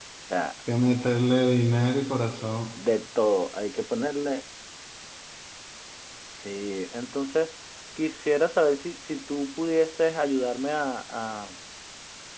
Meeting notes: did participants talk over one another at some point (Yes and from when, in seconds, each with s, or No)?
No